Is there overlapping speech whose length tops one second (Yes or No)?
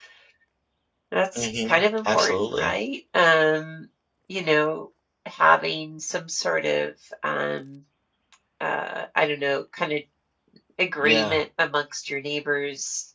Yes